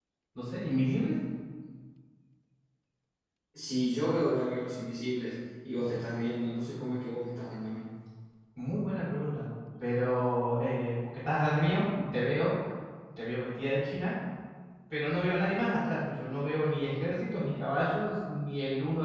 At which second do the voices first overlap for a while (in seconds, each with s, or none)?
none